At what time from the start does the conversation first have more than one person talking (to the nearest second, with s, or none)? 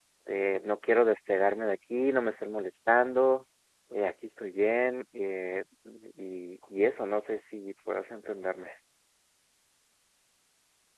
none